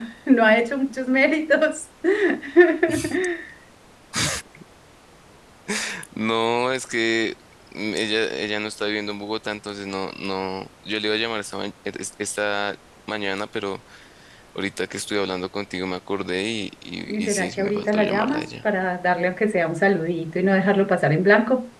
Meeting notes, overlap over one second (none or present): present